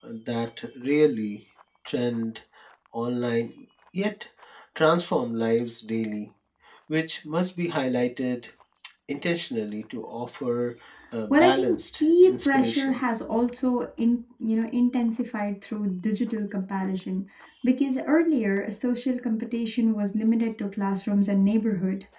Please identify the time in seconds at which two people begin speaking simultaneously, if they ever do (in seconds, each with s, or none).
11.3 s